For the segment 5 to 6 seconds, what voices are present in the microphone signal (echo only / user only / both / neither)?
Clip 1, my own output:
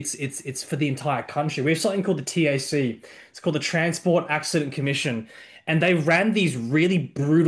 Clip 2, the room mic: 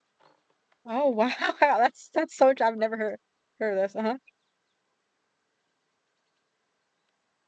neither